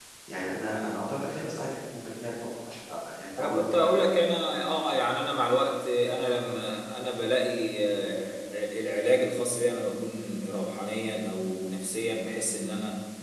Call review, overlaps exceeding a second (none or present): none